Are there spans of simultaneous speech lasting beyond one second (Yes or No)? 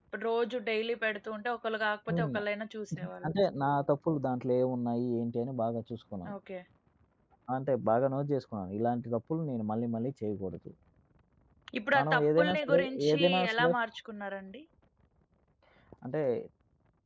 Yes